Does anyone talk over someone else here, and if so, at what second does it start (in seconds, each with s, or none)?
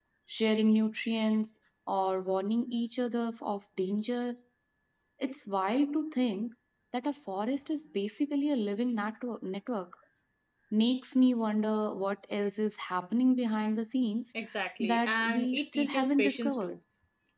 14.8 s